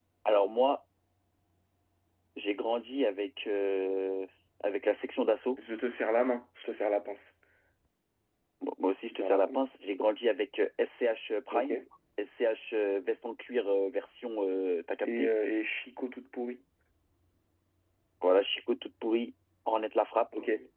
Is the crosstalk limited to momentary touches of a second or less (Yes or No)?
Yes